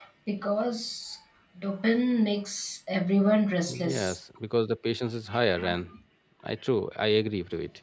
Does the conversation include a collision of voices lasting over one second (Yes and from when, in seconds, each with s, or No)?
No